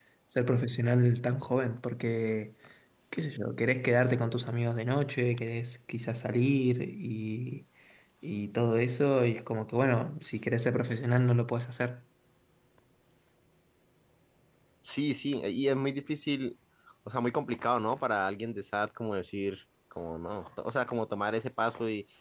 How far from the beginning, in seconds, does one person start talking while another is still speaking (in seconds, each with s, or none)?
none